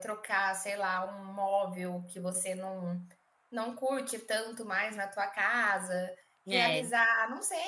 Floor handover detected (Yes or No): No